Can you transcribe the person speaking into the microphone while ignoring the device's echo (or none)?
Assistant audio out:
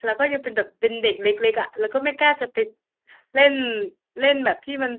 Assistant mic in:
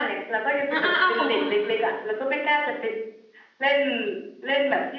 อ้าอ้าอ้าของคุณ